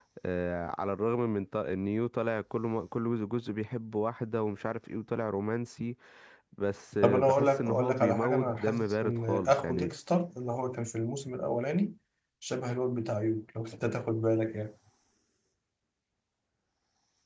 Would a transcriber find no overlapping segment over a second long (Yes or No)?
No